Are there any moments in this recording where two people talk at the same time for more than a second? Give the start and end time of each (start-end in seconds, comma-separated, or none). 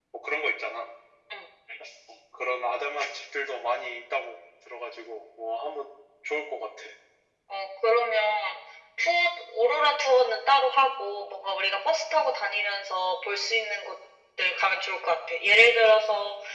none